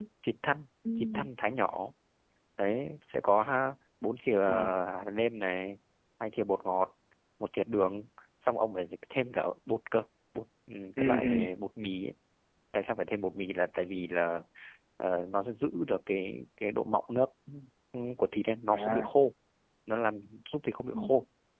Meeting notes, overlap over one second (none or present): none